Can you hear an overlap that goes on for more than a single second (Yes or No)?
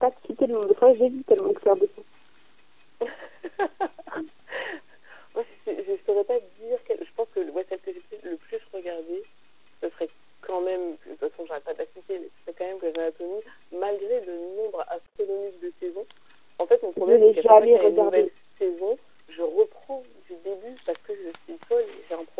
Yes